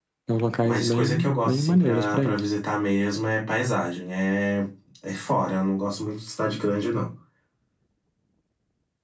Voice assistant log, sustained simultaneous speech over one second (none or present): present